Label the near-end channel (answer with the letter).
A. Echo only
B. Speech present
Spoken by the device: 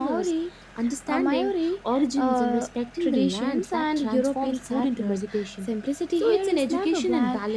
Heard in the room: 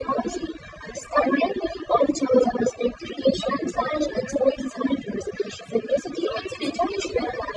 A